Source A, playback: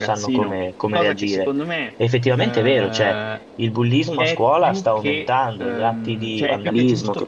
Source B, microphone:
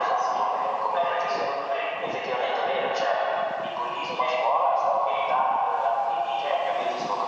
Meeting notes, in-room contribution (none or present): none